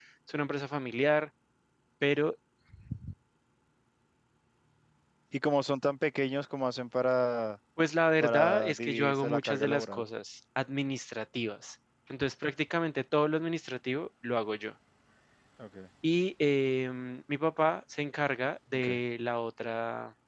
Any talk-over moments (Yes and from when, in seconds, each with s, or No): Yes, from 8.2 s